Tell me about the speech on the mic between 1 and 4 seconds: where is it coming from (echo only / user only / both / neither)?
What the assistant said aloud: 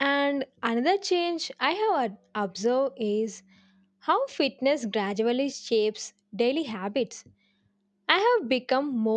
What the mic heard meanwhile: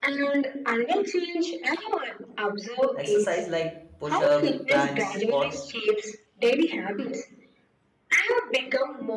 both